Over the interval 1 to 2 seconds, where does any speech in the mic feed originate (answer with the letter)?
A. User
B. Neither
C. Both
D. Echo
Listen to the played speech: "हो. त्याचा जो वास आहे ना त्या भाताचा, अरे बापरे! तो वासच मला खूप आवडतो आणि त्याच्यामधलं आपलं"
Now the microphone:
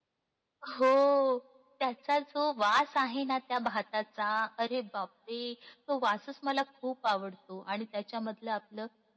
D